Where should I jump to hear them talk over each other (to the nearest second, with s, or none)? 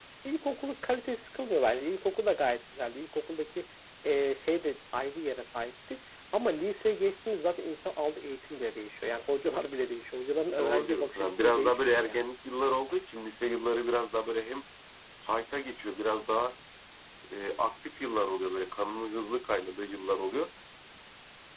11 s